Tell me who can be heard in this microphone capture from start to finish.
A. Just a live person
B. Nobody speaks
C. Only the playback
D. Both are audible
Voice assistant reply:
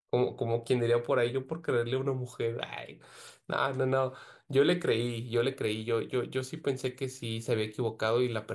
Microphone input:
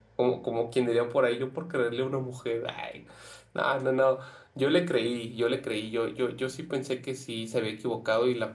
C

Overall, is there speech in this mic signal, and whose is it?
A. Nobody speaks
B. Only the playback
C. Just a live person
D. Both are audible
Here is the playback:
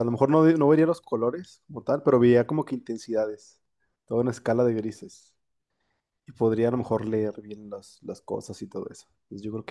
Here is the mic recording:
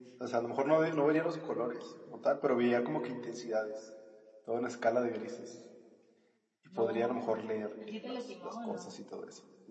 D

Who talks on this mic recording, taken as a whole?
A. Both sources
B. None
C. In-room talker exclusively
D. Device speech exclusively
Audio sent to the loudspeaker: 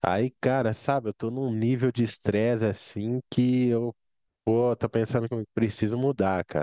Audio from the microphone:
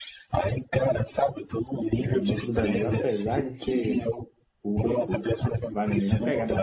A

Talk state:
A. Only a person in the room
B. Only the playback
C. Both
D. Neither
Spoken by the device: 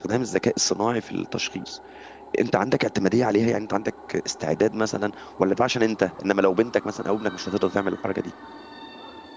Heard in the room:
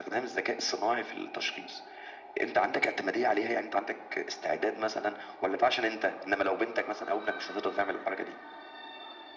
B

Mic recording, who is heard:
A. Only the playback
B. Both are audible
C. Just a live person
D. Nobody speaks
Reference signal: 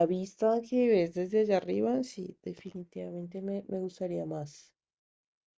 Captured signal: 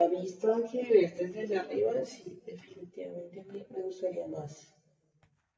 A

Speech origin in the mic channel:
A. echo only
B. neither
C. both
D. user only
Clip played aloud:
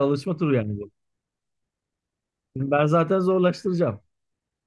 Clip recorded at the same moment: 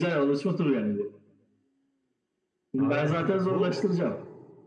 C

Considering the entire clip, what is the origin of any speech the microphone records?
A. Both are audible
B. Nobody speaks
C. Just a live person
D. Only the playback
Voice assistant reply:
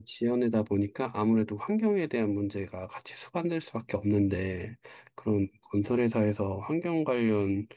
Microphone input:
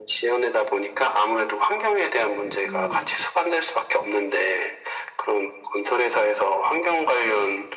A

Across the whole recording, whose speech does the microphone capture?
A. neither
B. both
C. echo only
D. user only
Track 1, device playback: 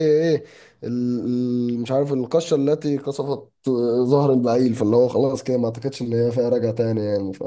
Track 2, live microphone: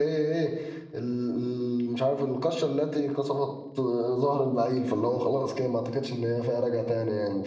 C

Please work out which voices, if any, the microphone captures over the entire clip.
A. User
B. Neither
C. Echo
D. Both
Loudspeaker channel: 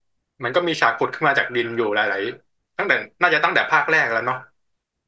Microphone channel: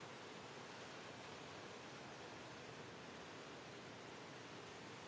B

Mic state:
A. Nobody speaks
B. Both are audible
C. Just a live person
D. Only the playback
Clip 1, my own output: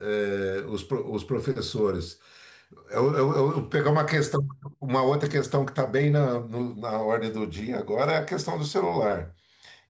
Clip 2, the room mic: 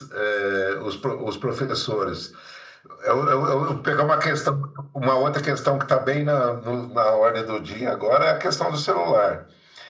D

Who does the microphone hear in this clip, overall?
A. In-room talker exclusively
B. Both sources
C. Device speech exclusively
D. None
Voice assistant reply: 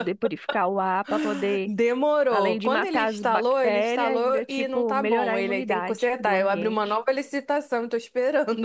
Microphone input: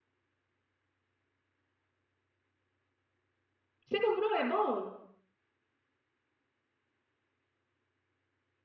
A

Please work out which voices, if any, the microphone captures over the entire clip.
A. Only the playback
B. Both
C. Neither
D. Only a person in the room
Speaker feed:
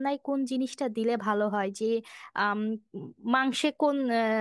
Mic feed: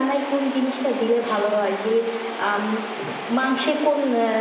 A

